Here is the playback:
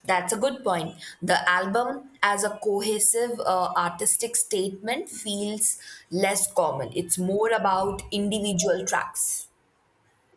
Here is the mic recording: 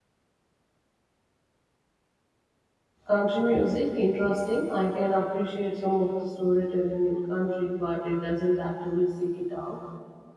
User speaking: Yes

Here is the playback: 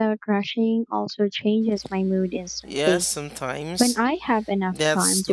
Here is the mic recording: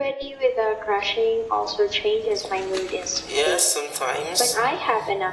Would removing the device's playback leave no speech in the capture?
Yes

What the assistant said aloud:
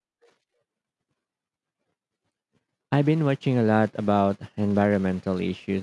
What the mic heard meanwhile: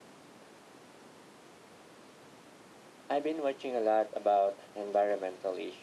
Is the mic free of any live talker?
Yes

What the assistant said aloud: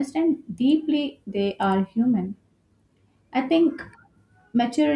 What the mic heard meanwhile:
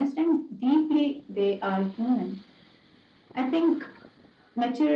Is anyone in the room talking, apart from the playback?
No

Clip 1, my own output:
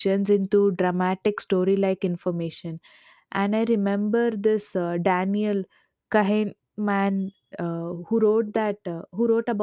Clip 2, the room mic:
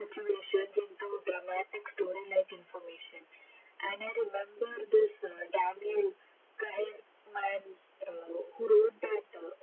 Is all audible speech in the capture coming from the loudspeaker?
Yes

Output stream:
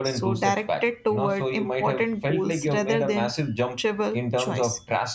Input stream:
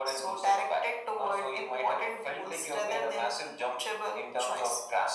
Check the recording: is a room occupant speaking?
No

